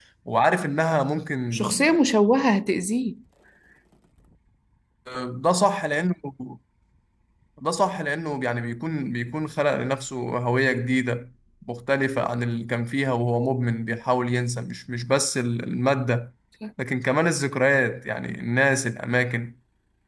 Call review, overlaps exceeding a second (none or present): none